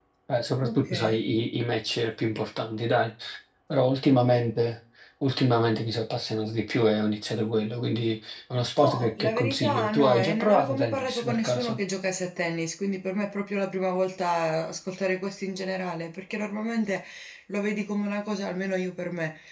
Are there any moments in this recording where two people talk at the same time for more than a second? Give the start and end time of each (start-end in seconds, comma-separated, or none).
8.8-11.8